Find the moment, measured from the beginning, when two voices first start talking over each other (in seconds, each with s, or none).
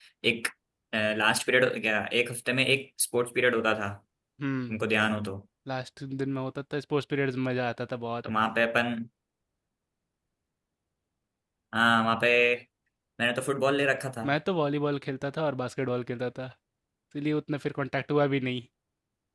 none